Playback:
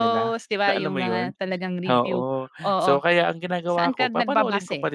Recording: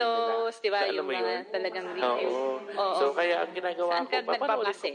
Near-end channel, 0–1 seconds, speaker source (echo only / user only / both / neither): echo only